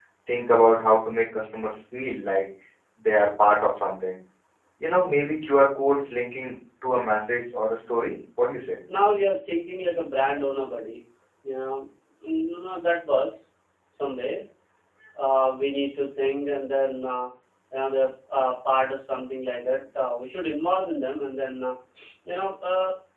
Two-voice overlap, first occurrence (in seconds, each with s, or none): none